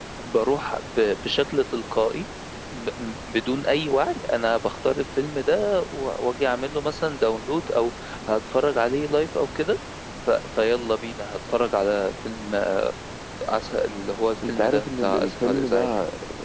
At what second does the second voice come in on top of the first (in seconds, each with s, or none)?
14.4 s